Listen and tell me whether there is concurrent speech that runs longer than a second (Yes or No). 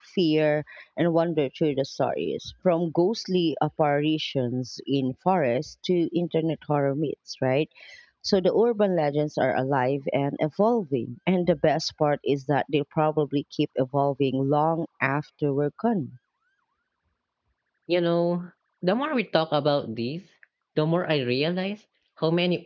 No